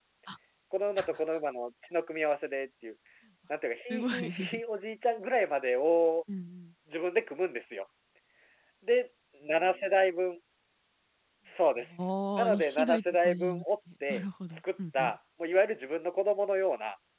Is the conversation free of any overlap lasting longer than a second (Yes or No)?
No